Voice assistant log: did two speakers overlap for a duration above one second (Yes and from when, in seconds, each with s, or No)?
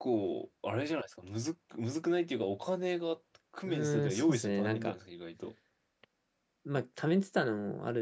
Yes, from 3.6 s